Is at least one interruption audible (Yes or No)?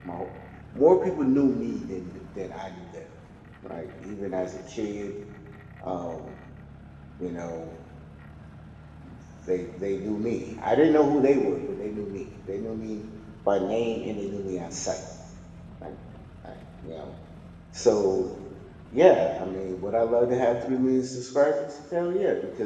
No